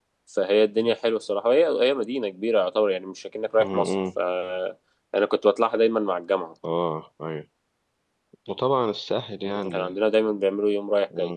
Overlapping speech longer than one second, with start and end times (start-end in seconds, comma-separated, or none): none